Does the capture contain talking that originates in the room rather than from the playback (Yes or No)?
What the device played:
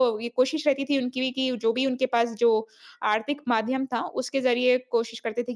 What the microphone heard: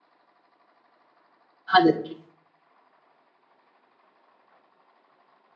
Yes